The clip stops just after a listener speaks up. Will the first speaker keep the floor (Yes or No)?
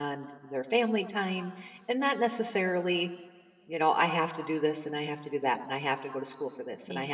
Yes